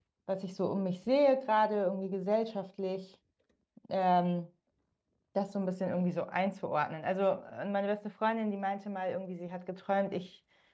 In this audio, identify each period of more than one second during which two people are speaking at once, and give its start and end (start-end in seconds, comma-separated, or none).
none